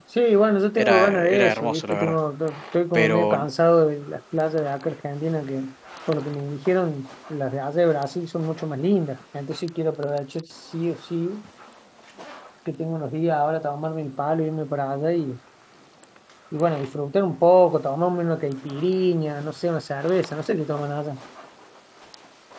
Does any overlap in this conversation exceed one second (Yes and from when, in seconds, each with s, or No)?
Yes, from 0.8 s